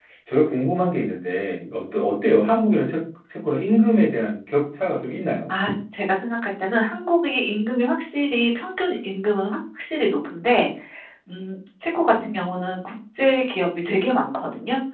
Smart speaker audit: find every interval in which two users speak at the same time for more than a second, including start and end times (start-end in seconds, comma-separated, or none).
none